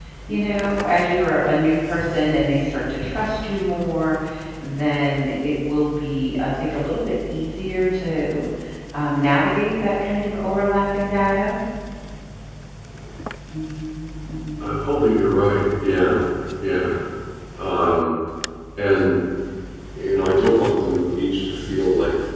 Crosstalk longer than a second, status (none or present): none